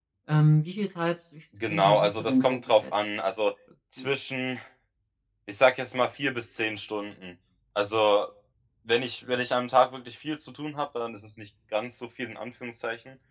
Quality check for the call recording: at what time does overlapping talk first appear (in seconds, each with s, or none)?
1.6 s